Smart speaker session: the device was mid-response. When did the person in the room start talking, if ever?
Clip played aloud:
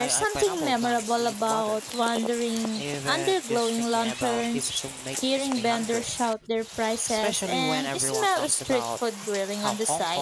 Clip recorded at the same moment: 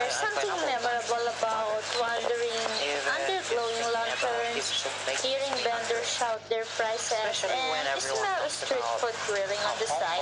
none

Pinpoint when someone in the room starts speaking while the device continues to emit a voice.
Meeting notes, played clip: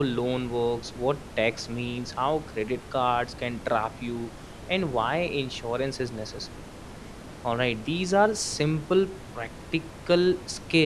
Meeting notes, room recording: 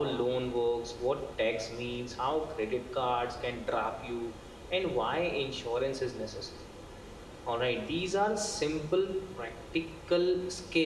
none

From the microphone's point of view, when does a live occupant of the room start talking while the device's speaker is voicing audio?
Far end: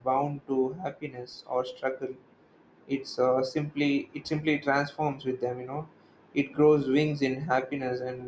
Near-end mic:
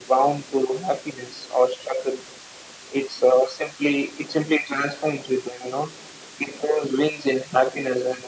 none

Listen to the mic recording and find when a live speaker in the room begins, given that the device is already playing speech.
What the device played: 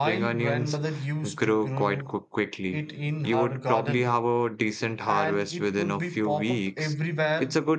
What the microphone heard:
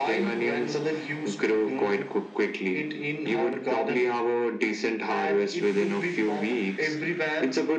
none

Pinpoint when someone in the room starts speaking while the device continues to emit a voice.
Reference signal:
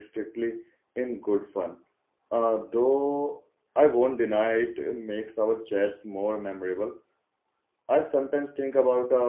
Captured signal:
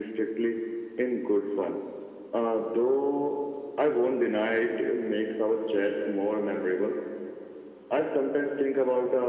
none

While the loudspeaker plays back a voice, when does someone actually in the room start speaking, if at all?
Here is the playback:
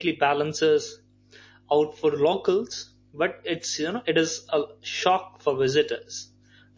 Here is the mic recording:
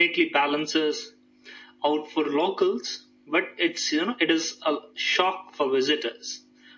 none

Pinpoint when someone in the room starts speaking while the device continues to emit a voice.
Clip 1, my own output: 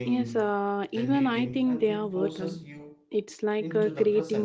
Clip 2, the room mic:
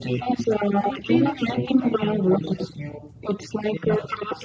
0.8 s

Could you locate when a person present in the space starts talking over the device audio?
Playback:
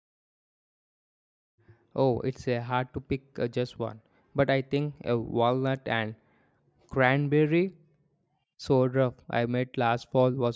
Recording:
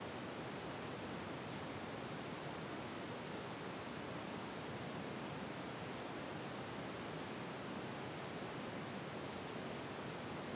none

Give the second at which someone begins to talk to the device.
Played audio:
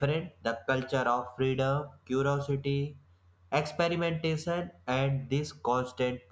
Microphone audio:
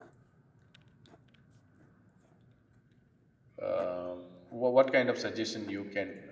3.6 s

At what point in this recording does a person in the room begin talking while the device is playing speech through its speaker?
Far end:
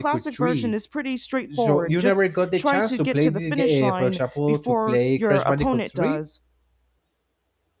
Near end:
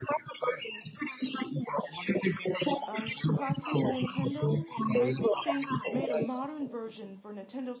2.9 s

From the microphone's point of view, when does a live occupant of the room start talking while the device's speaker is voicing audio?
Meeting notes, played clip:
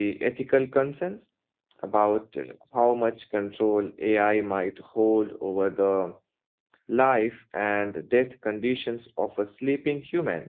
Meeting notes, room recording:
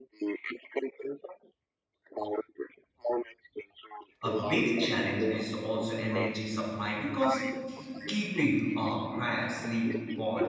4.2 s

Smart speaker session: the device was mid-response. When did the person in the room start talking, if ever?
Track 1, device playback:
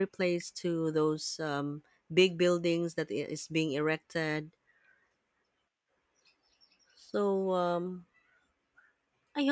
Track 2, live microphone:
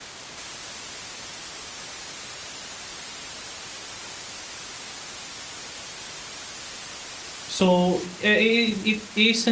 7.5 s

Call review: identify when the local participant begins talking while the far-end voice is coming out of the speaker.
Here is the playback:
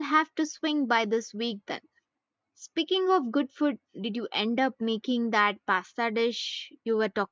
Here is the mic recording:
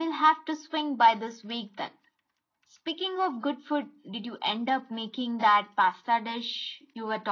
none

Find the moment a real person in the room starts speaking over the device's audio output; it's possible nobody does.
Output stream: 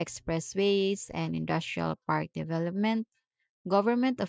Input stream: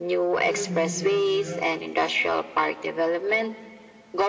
0.3 s

